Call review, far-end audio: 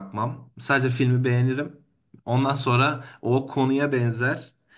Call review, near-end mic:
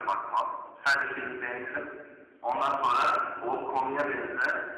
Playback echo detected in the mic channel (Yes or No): Yes